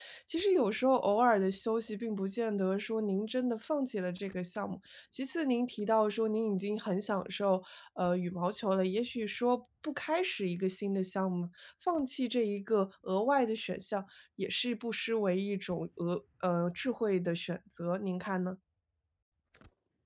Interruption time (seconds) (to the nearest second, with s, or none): none